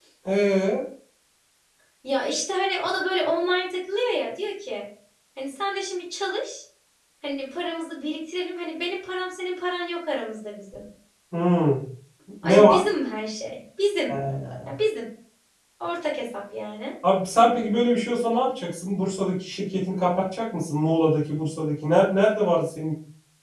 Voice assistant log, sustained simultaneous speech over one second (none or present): none